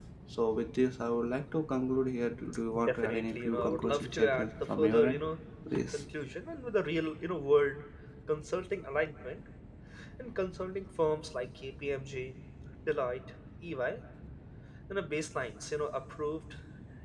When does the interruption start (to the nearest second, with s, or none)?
3 s